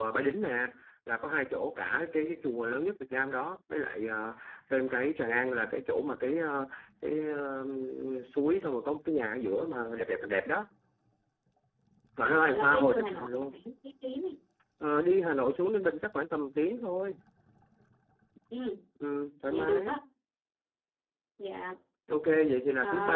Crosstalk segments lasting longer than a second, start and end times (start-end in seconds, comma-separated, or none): 12.2-13.5